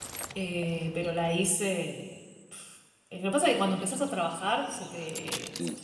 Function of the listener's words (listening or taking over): listening